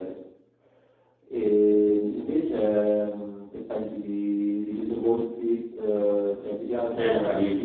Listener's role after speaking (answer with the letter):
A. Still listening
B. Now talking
B